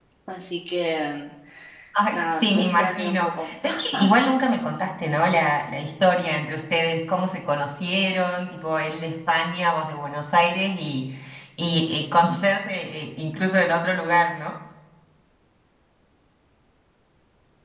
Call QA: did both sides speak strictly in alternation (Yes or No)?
No